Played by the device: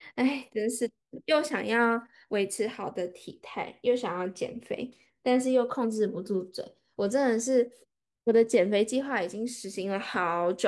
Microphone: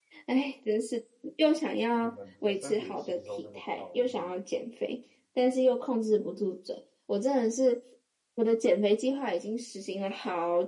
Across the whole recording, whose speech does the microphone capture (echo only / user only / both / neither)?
both